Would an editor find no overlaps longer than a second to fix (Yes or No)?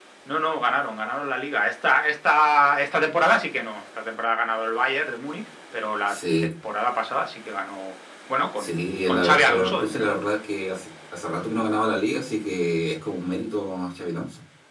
No